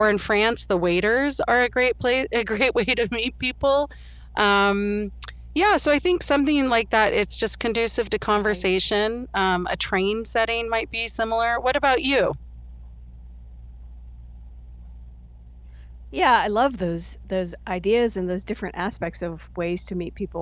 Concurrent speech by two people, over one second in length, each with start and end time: none

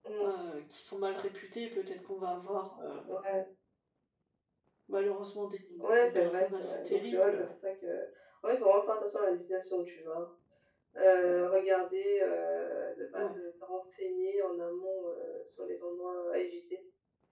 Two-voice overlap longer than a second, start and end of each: 6.0-7.5

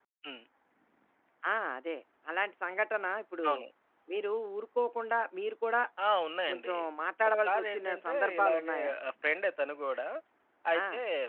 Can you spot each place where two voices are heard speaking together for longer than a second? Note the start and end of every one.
7.4-8.9

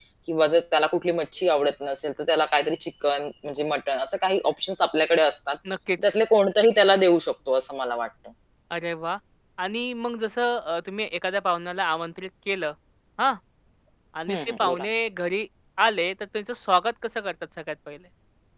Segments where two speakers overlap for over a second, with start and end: none

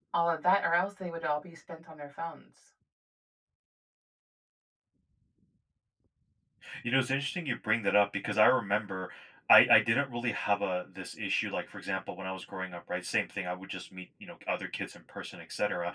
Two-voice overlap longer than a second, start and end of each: none

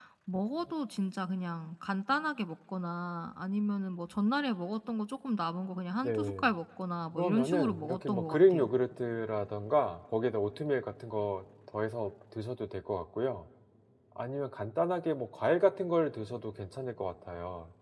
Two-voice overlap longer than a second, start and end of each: 7.1-8.7

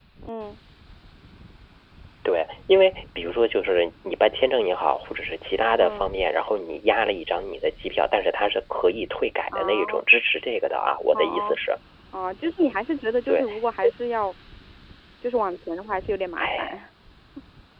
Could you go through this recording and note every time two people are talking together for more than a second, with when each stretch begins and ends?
none

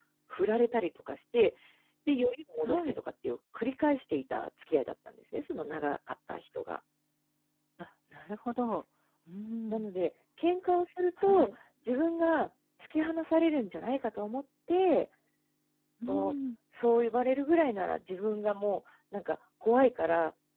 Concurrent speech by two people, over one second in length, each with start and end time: none

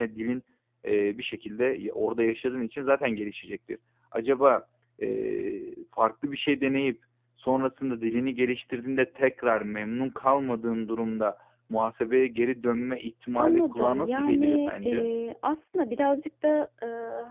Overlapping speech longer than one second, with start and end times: 13.3-15.1

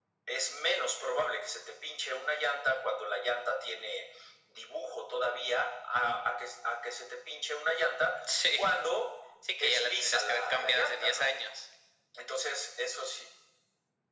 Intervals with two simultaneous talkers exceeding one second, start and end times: 9.6-11.3

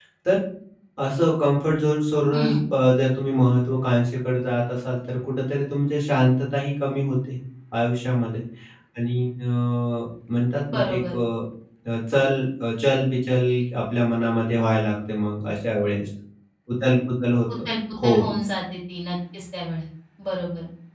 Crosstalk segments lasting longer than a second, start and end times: none

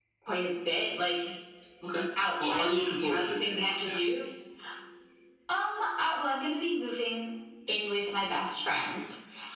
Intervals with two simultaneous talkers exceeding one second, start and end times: 2.4-4.0

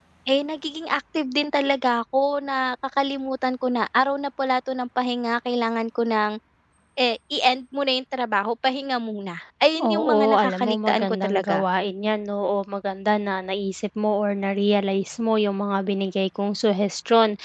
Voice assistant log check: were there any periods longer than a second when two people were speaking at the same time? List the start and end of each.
9.8-11.7

